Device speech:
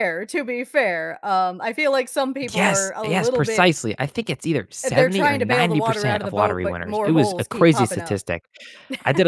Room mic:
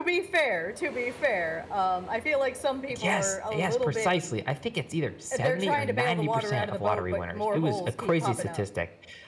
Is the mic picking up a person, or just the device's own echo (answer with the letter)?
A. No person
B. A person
A